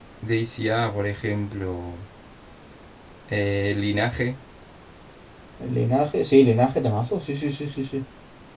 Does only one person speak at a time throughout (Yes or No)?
Yes